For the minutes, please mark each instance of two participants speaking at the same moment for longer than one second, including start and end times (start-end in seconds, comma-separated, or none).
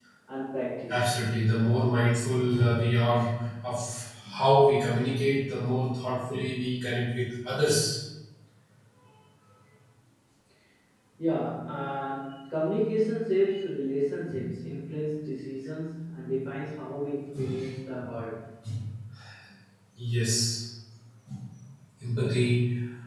none